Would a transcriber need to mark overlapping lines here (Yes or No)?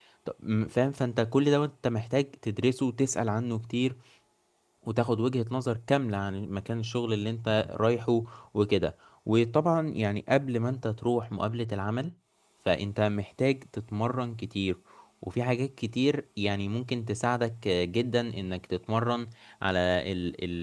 No